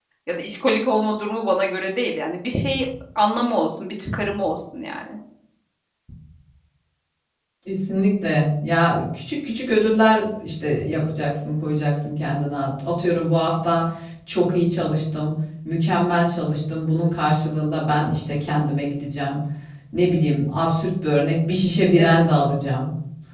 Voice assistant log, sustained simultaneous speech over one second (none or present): none